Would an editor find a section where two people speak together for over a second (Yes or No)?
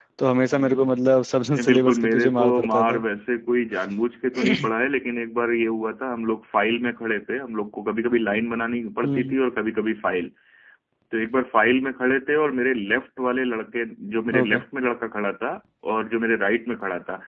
Yes